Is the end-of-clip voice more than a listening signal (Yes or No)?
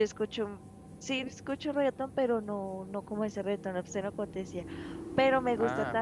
No